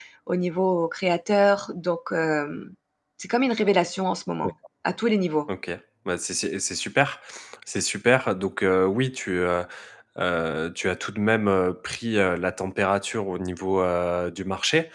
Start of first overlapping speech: none

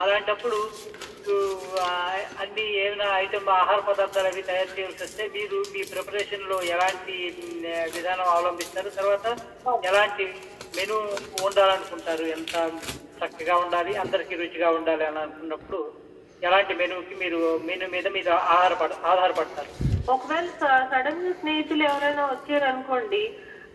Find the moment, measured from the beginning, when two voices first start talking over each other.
none

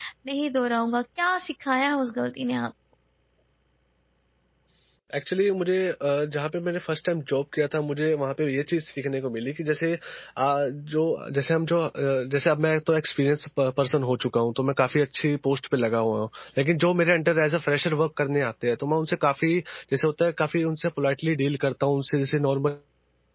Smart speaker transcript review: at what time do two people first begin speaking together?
none

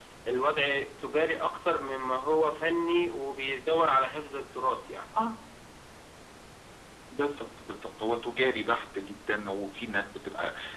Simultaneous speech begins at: none

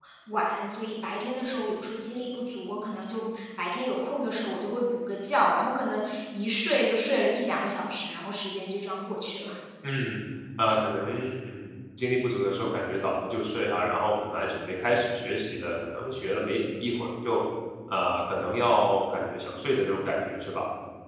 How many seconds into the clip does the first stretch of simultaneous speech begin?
none

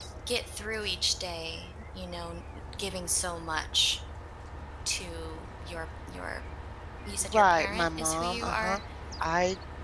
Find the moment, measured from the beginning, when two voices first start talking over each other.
7.3 s

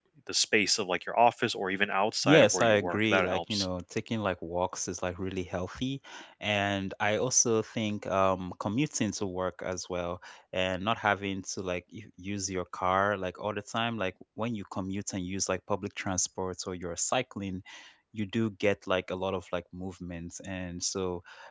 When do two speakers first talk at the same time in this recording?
2.2 s

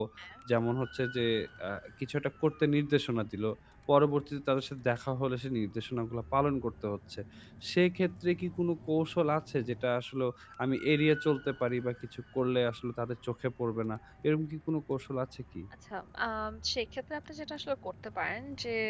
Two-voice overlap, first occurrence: none

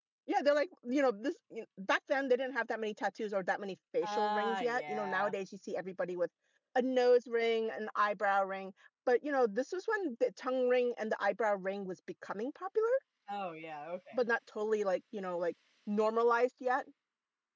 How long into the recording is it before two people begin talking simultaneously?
4.0 s

